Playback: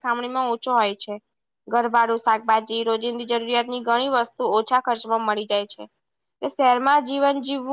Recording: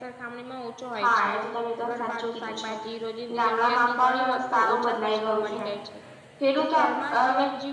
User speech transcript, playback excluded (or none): હા એ તો તમે એકદમ સાચું કીધું છે ગામડામાં પણ સારું બદલાઈ ગયું છે ખેડૂત અને